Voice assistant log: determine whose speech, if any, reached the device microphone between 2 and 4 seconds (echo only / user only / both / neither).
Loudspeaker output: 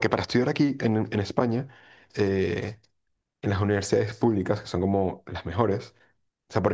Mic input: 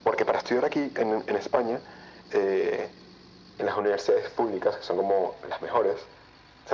echo only